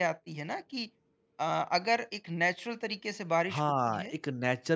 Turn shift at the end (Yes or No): Yes